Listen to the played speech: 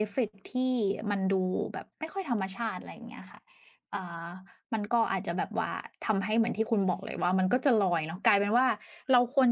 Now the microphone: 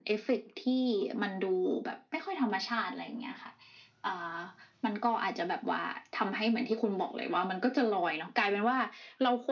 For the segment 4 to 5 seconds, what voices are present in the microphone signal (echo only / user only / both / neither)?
echo only